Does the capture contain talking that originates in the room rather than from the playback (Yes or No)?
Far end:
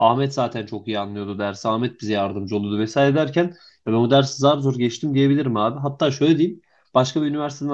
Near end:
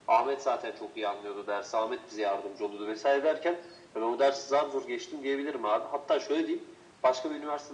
No